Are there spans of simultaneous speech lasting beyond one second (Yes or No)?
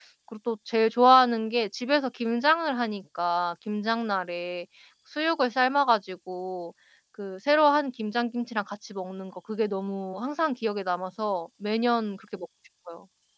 No